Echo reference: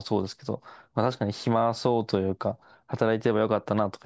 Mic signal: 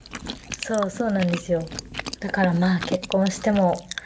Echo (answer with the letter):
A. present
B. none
B